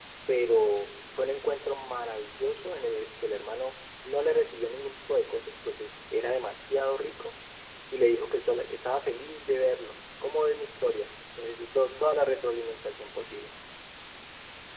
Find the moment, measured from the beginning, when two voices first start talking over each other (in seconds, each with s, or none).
none